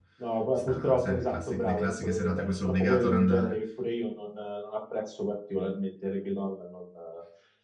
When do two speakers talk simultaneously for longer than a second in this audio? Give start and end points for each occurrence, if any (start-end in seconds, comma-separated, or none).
0.5-3.6